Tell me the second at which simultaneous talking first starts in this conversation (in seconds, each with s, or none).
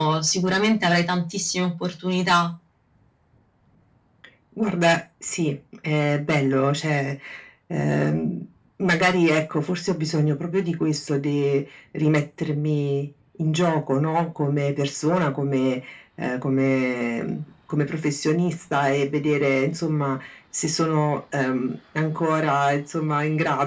none